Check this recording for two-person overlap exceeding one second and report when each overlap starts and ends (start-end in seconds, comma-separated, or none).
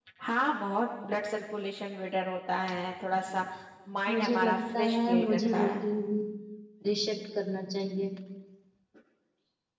4.1-5.7